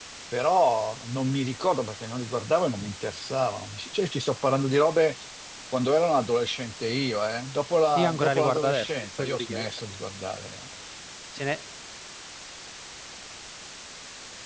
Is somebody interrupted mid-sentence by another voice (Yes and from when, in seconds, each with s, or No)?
Yes, from 8.0 s